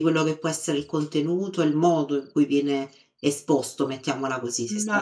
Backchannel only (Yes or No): No